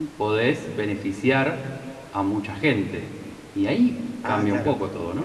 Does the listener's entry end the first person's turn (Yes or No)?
Yes